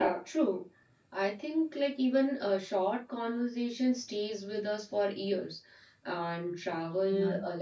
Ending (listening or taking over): listening